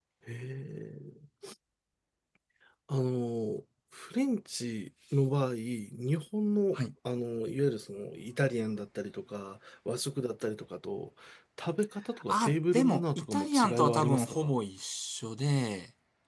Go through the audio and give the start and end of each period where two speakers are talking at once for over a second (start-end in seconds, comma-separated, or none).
12.3-14.5